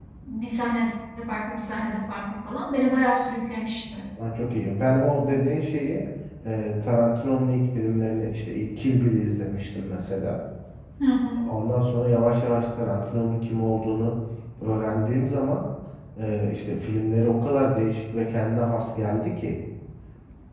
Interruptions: none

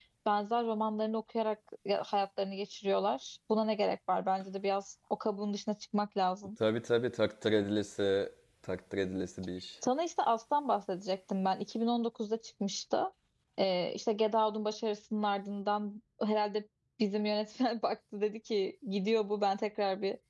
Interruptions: none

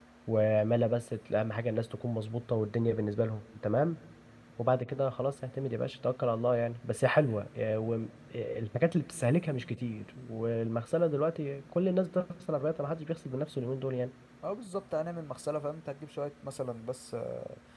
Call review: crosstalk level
none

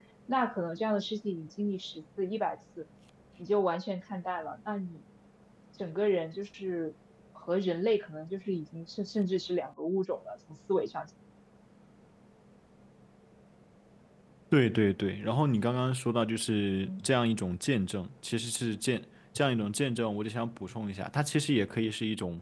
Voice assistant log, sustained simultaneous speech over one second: none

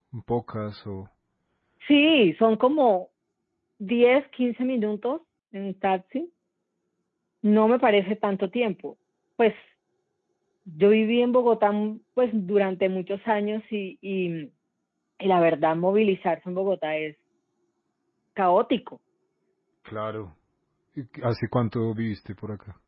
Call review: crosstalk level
none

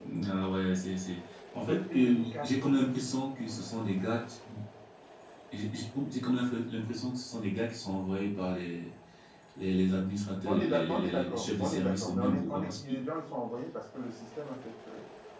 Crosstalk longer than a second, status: present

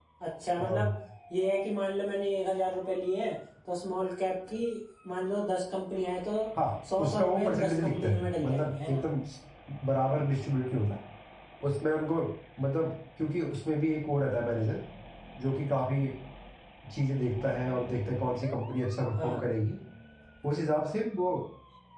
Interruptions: present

